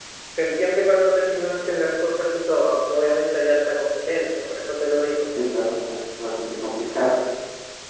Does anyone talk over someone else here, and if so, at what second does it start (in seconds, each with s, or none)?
none